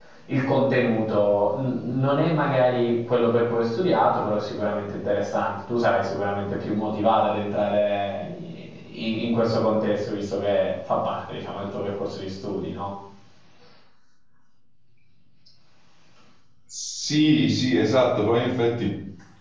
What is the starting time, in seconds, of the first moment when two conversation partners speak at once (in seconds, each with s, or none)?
none